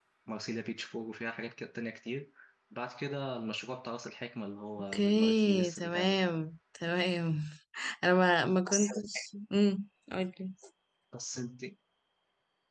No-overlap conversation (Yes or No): No